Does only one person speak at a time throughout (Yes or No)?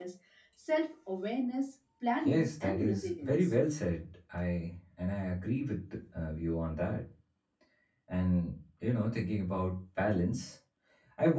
No